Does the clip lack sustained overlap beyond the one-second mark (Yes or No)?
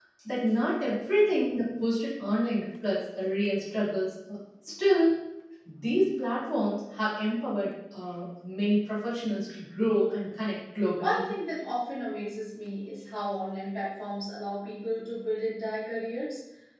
Yes